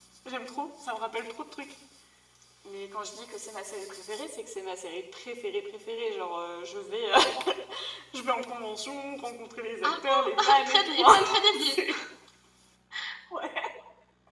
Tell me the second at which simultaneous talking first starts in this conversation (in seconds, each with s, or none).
9.8 s